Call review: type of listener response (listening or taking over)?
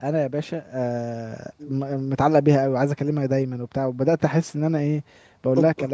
listening